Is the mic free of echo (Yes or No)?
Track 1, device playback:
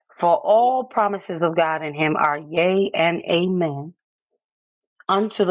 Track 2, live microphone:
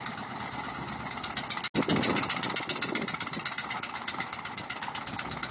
Yes